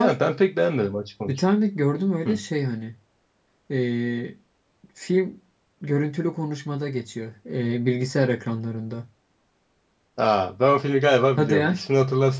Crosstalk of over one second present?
No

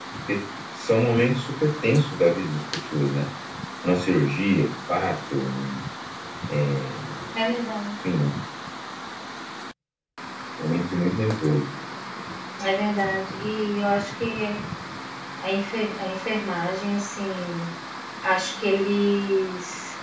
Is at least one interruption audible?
No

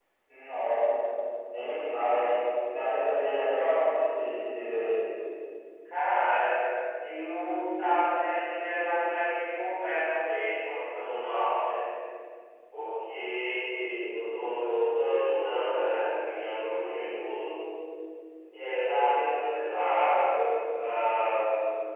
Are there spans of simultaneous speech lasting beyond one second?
No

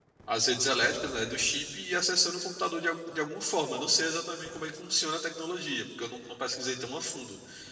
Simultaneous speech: No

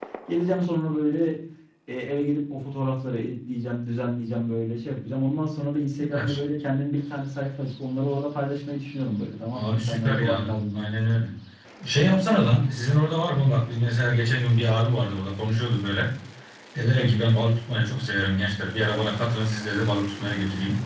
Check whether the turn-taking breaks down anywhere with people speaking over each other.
Yes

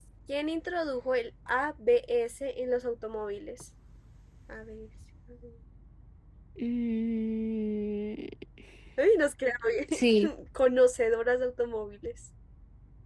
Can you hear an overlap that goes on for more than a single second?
No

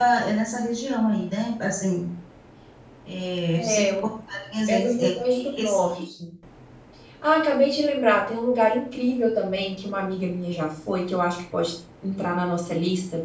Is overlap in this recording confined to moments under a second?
No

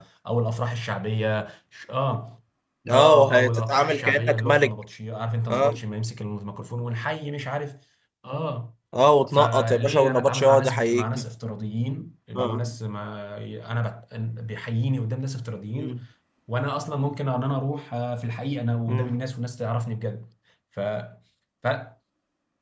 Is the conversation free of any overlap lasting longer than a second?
No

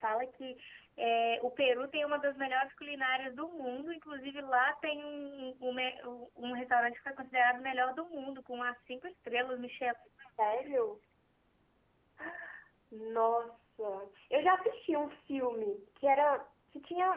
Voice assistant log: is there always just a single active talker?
Yes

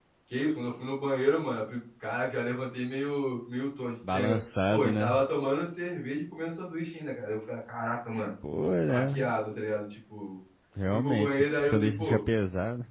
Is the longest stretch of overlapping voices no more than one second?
No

